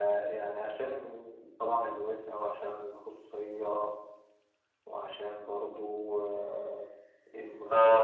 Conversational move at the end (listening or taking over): listening